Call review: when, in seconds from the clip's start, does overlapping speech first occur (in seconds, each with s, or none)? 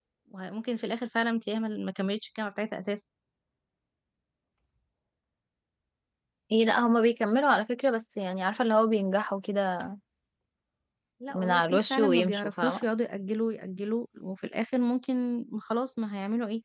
11.3 s